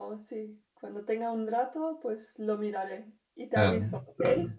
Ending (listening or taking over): taking over